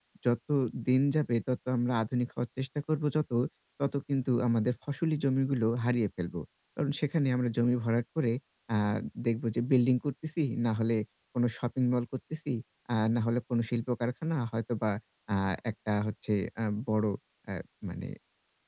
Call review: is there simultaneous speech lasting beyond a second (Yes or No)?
No